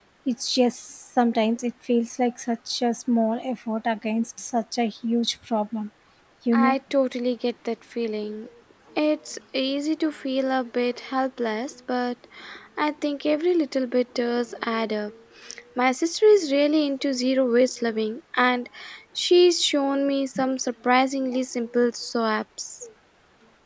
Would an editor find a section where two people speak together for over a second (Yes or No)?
No